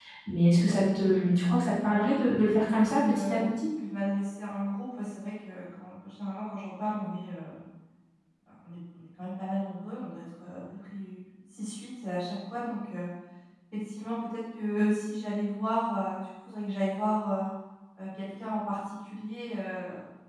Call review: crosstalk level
present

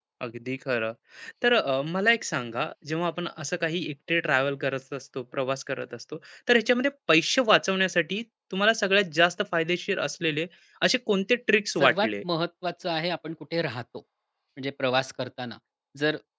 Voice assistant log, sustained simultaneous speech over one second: none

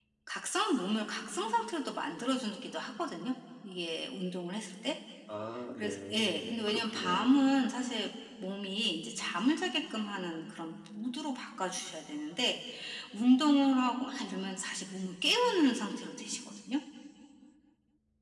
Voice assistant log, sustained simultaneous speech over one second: present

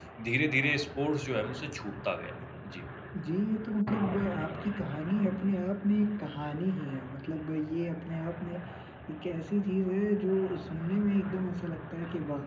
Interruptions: none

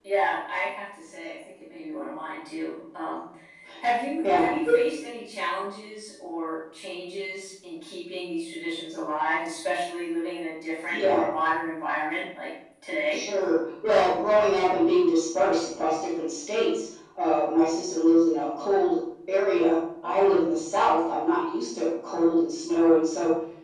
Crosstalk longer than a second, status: none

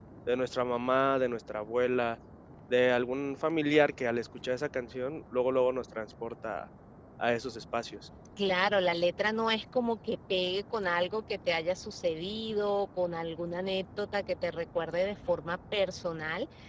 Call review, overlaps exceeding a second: none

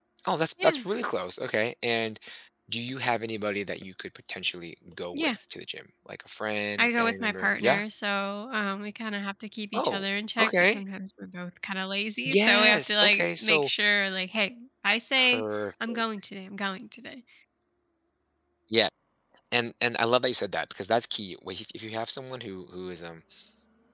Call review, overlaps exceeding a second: present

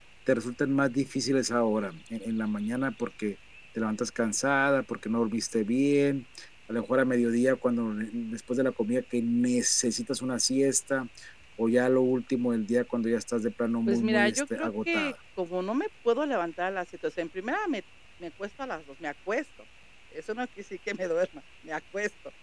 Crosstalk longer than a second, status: present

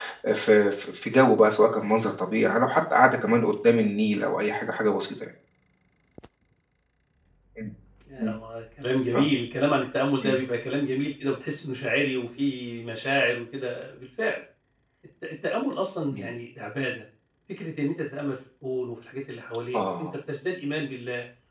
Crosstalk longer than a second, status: none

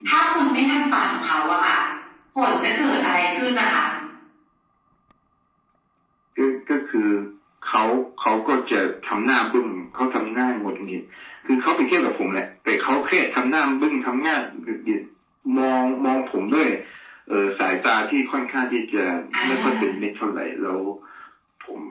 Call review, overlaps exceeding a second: none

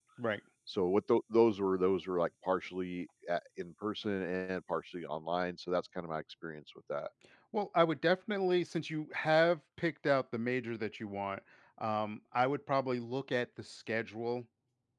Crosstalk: none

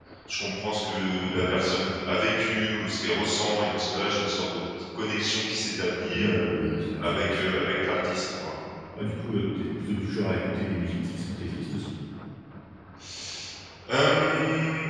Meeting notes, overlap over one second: none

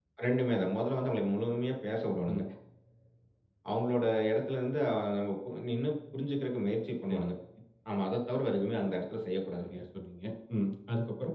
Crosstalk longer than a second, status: none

